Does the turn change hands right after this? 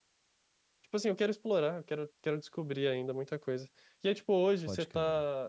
No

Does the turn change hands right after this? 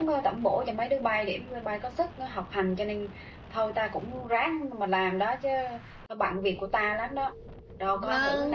Yes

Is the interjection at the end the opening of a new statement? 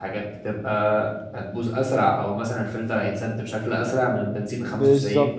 Yes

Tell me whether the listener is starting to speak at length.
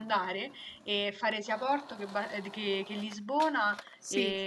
No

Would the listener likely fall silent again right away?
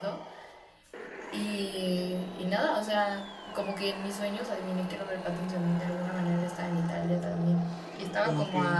No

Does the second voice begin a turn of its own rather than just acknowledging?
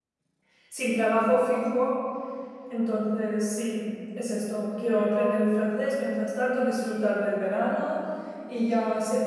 No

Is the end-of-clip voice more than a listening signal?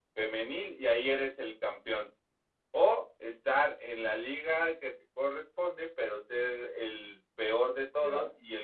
No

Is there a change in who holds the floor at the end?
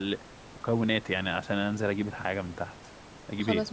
Yes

